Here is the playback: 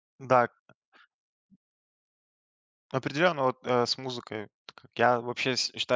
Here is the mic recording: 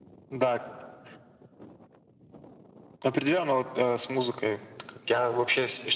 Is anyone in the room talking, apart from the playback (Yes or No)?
No